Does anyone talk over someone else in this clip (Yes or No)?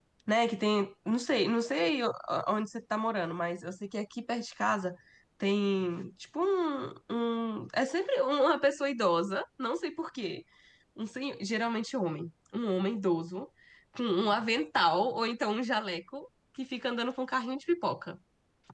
No